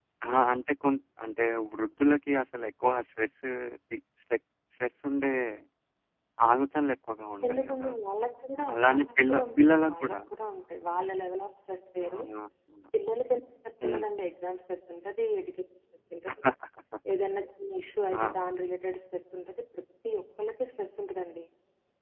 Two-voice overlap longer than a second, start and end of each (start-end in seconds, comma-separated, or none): 8.7-10.2